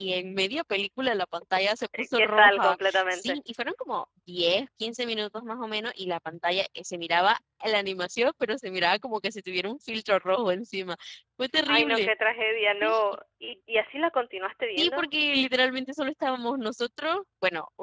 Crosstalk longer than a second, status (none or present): present